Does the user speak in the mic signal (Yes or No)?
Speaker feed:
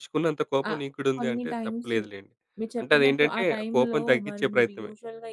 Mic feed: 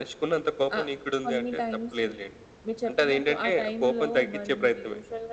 No